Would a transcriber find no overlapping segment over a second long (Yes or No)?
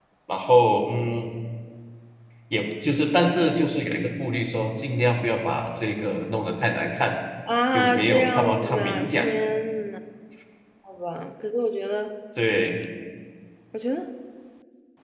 No